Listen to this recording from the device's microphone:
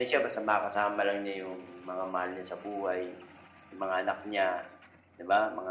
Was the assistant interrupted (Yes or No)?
No